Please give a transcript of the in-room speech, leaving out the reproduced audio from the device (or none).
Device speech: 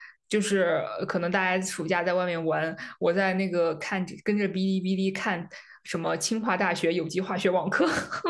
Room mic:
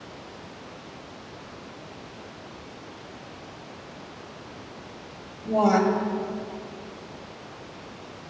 哇，